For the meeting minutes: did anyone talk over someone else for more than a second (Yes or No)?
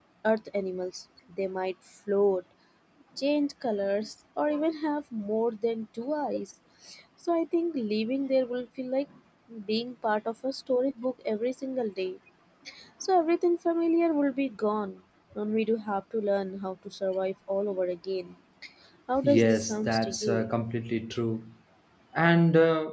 Yes